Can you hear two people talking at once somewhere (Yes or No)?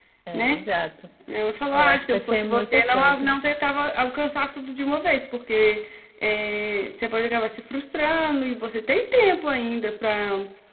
Yes